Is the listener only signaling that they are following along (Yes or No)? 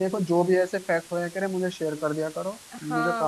No